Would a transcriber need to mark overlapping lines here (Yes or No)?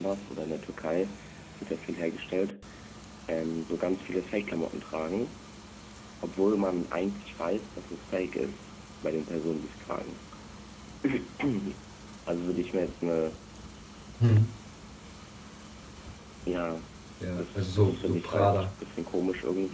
Yes